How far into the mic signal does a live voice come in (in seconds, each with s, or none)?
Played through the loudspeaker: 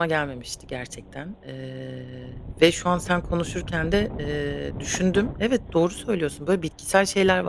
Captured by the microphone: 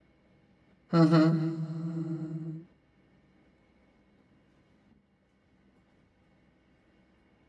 0.9 s